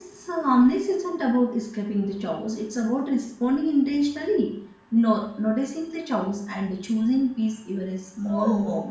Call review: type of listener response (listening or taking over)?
taking over